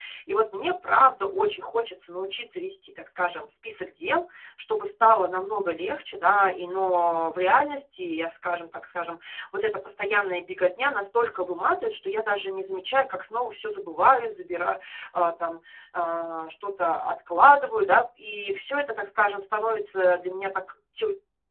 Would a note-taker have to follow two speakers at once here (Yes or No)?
No